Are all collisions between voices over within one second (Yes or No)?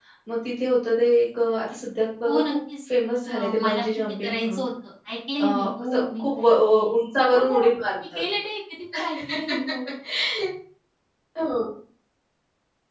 No